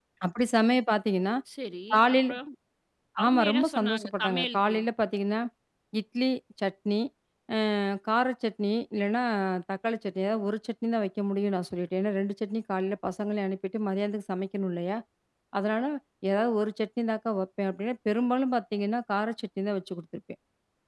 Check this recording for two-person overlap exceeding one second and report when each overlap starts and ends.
3.2-4.8

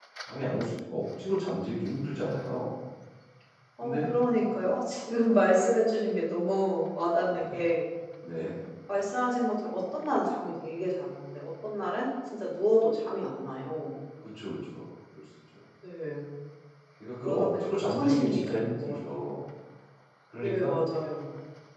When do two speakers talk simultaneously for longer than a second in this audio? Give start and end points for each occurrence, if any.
17.2-19.3

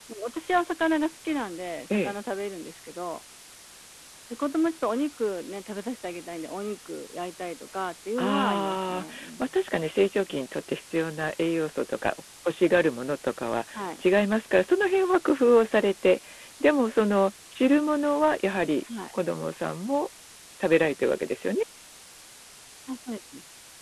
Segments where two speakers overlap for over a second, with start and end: 8.2-9.4

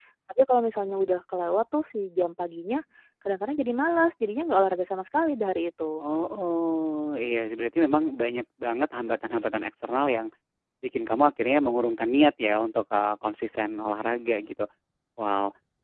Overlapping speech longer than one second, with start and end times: none

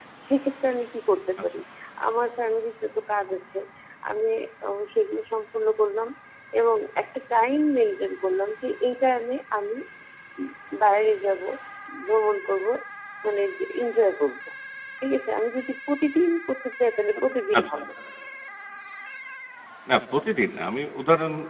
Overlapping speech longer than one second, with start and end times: none

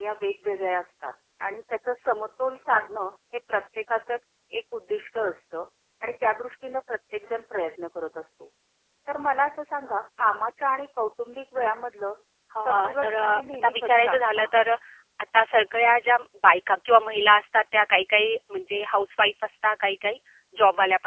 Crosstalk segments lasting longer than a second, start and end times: 12.6-14.5

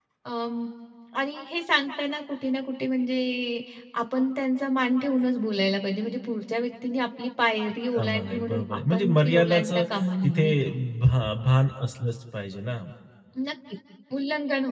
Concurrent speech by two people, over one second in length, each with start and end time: 7.9-9.8

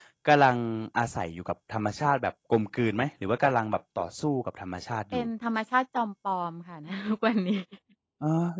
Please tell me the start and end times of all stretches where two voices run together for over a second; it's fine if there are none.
none

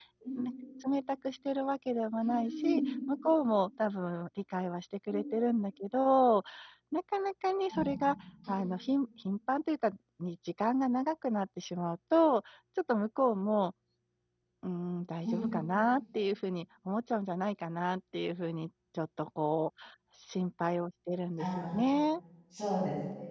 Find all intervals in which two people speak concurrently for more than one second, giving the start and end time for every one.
none

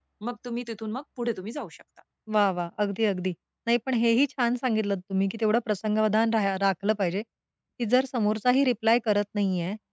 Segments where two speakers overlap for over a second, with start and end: none

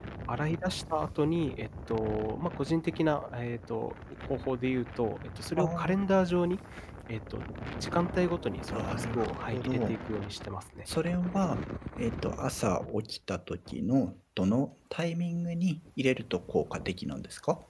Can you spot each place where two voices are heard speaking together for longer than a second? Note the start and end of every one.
8.7-10.0

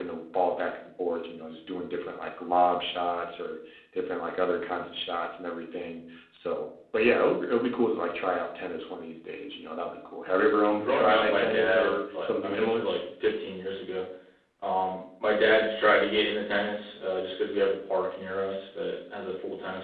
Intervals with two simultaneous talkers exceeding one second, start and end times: 10.8-12.9

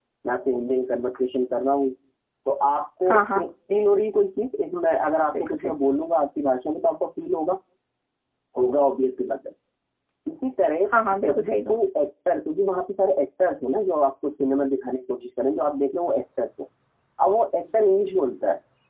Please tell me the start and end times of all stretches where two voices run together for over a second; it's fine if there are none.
none

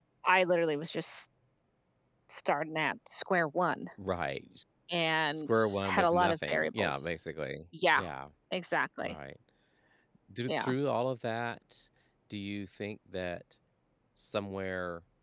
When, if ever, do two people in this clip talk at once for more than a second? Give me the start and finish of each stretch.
5.5-7.1

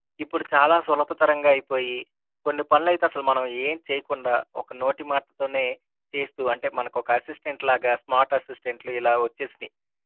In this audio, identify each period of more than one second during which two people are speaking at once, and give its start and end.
none

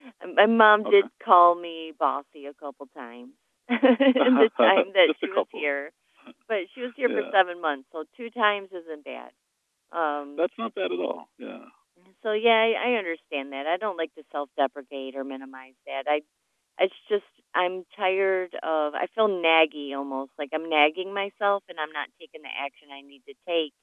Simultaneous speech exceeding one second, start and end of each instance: 4.2-5.7

